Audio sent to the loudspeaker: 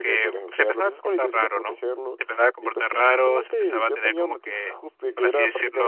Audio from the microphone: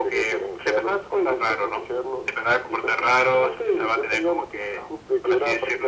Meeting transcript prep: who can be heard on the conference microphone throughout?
echo only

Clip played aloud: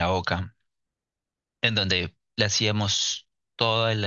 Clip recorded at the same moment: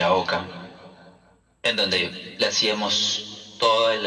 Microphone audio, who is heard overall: echo only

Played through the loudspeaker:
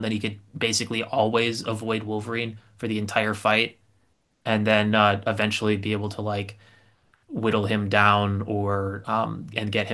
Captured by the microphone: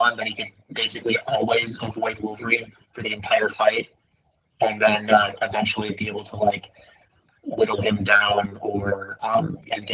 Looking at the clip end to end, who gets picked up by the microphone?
echo only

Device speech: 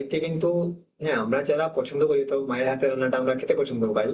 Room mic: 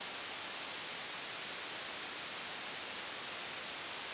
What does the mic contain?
neither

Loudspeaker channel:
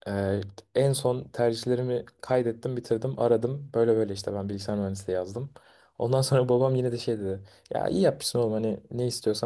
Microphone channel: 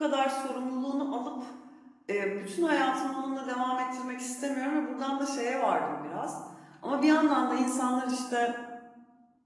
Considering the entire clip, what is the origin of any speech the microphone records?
user only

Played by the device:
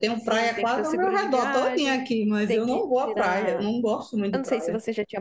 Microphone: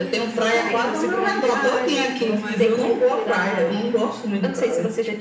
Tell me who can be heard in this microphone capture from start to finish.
both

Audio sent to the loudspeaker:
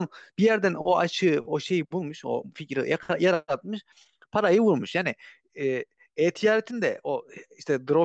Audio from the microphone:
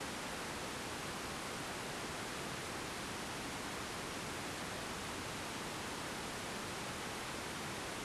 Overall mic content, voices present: neither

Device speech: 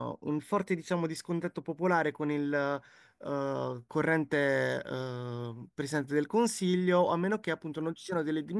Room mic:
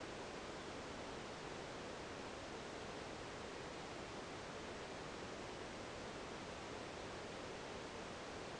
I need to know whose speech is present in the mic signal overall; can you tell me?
neither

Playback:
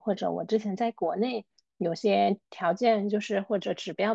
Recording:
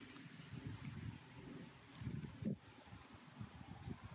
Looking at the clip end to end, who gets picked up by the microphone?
neither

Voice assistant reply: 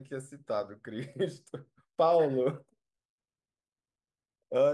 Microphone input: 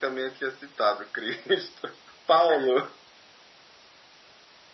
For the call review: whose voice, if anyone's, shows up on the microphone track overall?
echo only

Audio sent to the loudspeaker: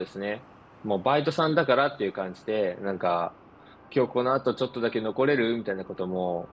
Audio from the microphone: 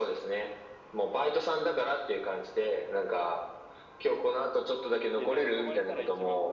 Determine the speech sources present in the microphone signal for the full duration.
both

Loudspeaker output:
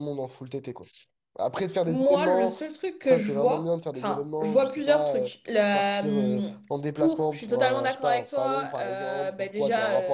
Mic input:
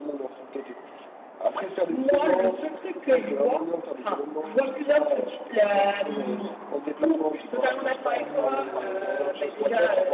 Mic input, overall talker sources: both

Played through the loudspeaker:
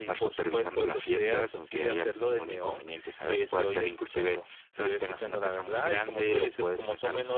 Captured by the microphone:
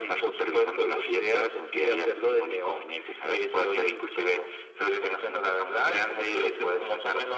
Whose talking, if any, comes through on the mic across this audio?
echo only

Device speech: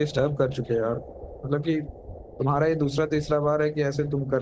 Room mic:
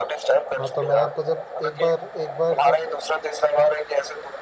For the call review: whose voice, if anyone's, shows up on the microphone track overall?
both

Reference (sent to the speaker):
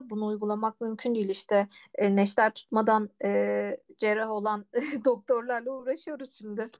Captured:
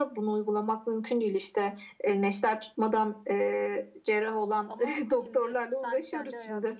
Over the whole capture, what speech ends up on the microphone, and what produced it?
both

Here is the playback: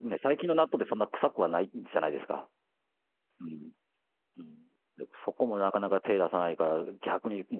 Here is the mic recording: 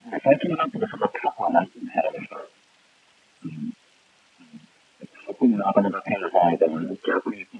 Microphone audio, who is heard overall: echo only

